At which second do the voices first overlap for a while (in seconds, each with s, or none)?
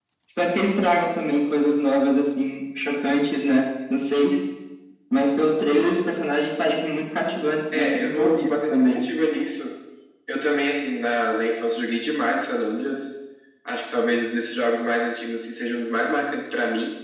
7.7 s